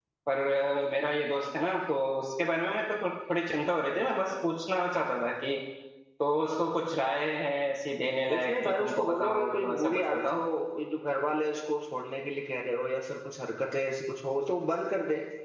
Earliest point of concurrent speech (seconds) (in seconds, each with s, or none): 8.3 s